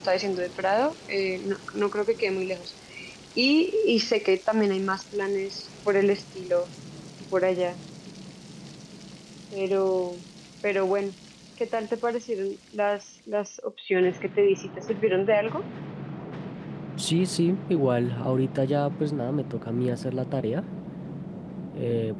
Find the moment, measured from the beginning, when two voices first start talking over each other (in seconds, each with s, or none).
none